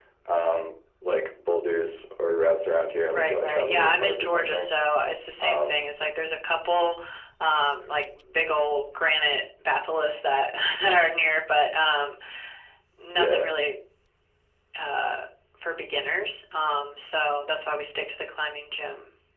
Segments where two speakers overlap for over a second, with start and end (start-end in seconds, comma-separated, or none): 3.1-4.7